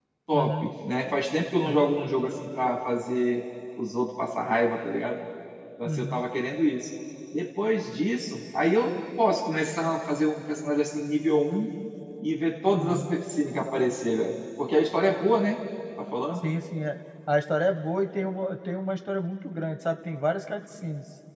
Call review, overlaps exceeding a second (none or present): none